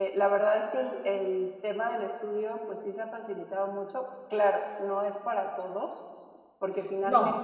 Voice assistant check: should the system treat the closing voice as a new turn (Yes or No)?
No